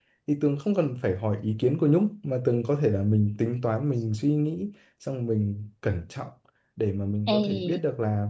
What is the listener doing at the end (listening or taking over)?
listening